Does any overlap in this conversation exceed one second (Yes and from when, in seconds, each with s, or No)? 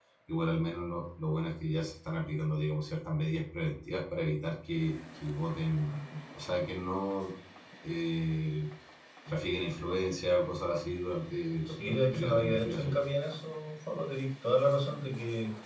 Yes, from 11.7 s